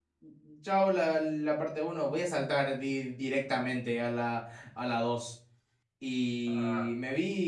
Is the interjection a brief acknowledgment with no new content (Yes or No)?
Yes